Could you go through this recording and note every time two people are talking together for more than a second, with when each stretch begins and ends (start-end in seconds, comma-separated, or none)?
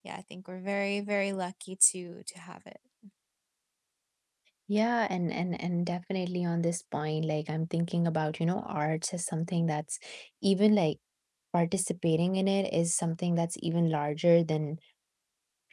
none